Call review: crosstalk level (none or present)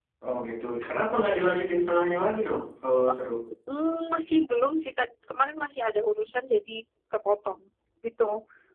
none